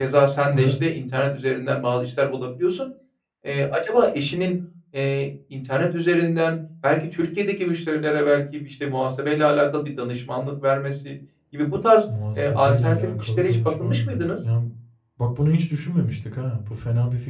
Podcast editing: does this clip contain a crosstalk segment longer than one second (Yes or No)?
Yes